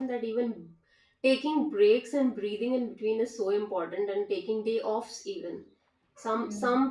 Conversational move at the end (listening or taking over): listening